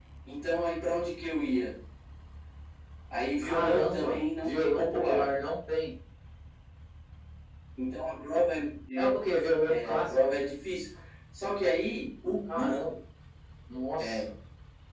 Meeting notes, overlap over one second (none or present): present